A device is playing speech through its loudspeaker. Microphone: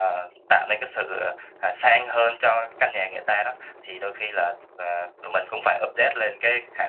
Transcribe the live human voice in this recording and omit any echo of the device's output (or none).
none